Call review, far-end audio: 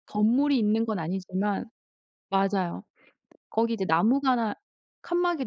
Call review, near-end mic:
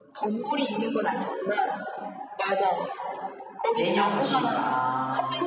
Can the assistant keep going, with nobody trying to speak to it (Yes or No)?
No